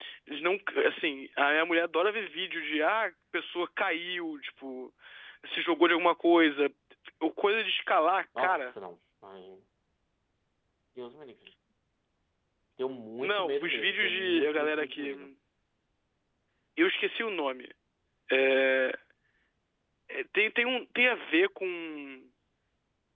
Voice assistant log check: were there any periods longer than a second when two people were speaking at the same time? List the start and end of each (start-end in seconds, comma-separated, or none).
13.2-15.1